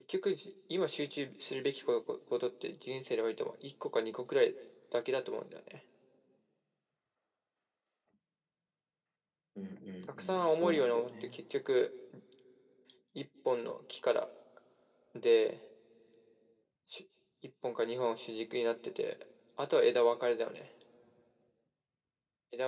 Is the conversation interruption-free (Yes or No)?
No